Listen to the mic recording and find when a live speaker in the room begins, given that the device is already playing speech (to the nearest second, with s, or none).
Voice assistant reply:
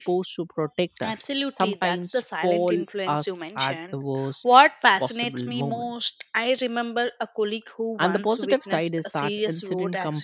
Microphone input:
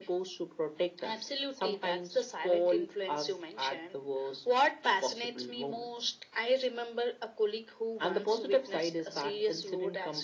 none